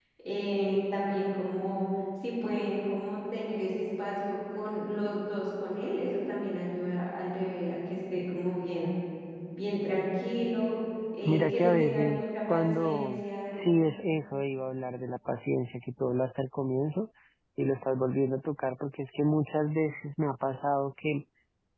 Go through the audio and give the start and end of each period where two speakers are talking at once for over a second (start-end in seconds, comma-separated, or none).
11.2-13.2